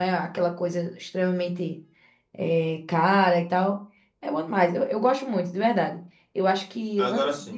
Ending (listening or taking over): listening